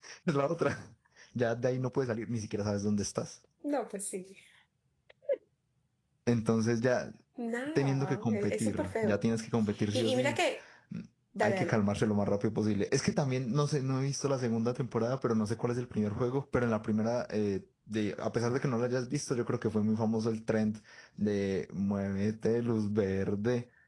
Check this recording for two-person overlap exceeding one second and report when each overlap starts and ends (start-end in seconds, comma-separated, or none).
7.8-9.2